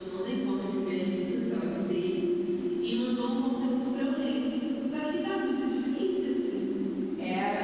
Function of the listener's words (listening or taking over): taking over